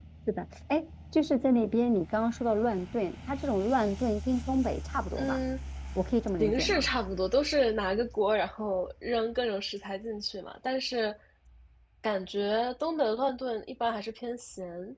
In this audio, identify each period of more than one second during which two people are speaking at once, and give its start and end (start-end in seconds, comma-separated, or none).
none